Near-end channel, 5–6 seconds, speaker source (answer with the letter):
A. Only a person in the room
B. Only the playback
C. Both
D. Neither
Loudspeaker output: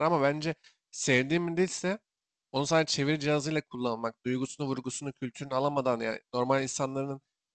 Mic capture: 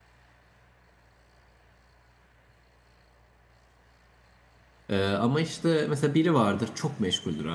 A